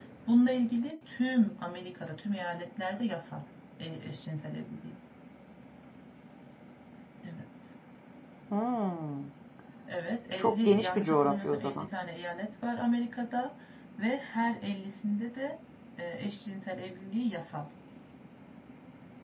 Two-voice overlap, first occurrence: 10 s

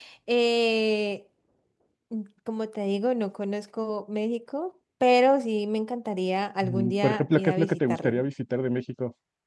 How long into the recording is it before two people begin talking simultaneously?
7 s

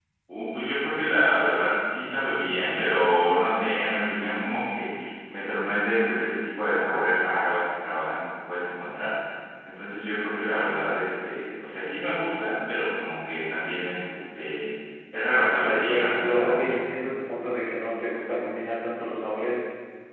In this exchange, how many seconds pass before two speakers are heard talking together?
16 s

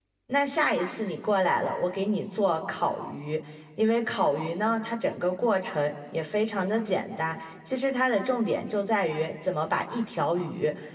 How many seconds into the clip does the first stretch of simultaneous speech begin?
none

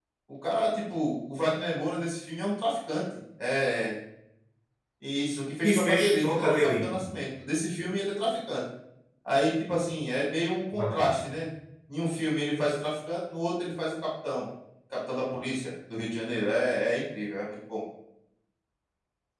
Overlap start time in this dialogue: 6 s

